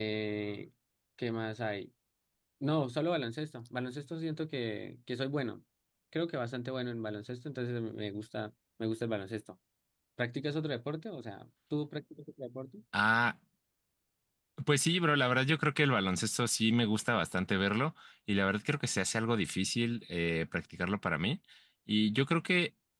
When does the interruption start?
none

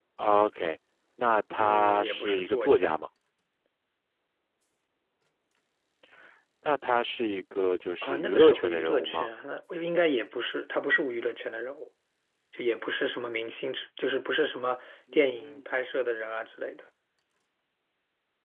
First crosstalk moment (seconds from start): 1.6 s

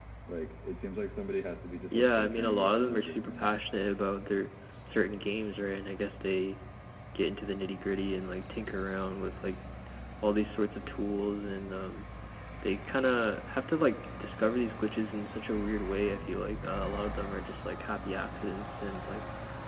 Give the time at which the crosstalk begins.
1.9 s

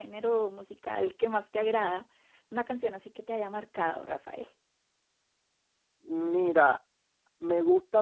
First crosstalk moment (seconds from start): none

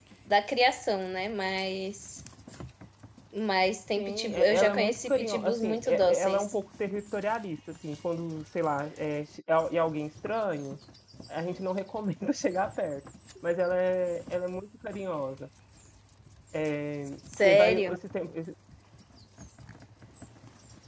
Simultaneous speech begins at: 4.0 s

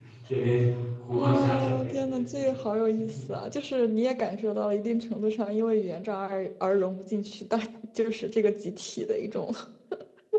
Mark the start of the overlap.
1.1 s

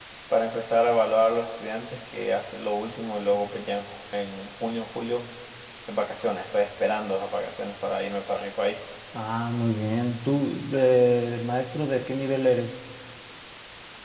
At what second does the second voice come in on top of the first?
none

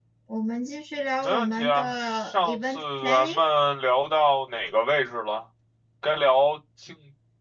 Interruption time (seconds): 1.2 s

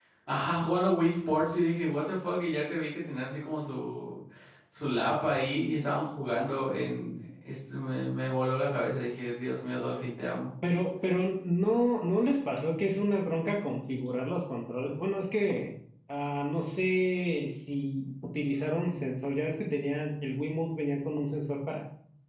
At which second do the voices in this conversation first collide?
none

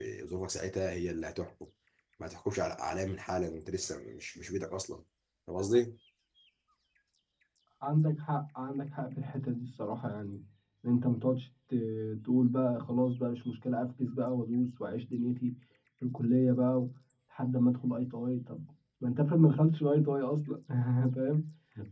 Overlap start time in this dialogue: none

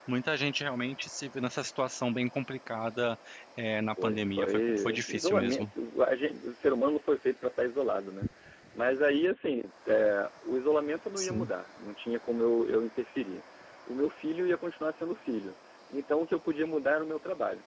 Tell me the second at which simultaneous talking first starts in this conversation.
4.0 s

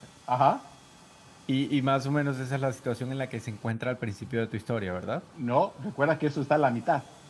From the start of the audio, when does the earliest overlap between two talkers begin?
none

